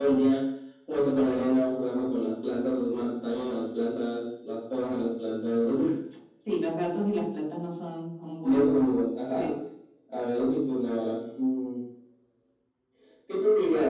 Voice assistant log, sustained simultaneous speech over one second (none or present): none